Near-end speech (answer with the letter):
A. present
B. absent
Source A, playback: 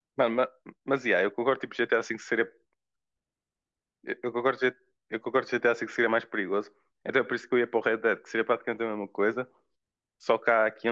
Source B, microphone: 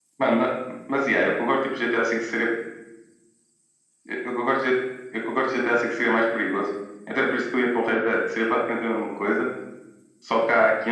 B